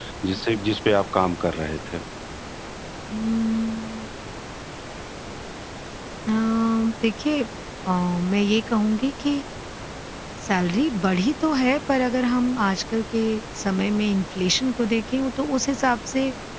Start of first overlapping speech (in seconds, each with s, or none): none